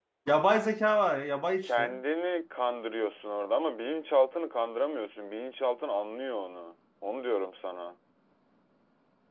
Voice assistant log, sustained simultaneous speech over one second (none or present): none